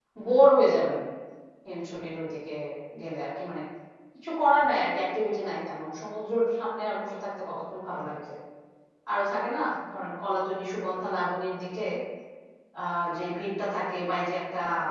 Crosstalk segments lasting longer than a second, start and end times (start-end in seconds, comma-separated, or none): none